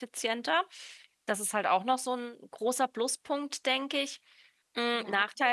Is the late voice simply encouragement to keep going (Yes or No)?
No